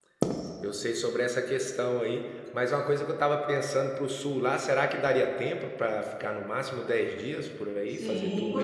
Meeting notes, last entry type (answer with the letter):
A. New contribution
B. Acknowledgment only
A